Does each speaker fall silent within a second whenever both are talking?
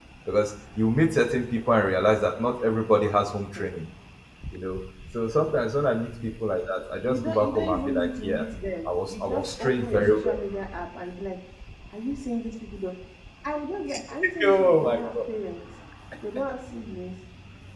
No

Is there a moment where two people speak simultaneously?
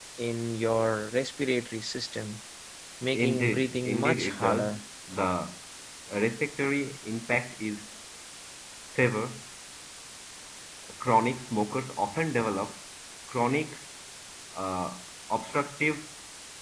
Yes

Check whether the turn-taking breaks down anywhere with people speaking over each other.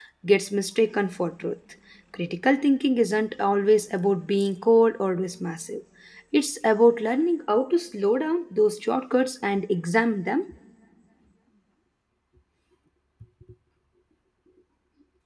No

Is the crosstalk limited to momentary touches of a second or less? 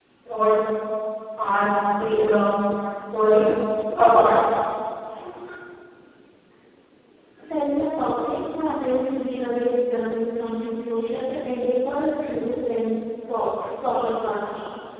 Yes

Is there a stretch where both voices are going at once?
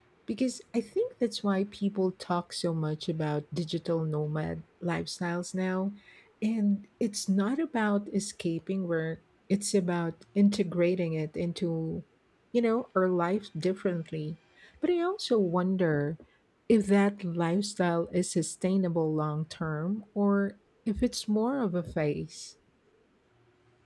No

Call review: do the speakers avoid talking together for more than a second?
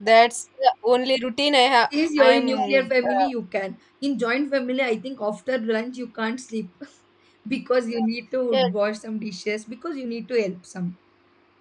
No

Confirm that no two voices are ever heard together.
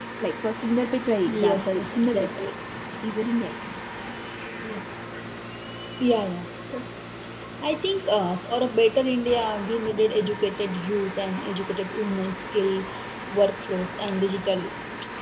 No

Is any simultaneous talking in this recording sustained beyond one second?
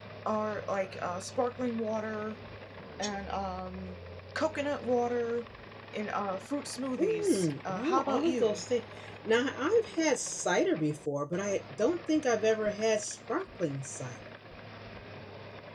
Yes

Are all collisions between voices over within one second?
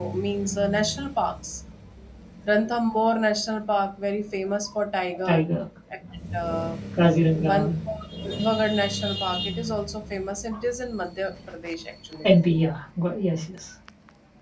Yes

